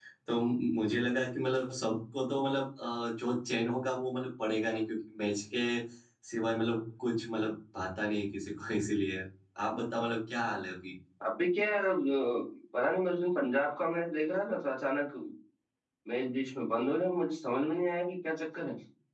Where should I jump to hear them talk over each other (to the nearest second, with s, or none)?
none